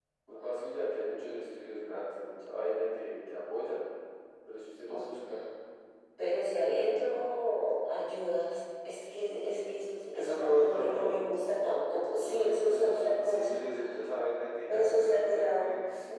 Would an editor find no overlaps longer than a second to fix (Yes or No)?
No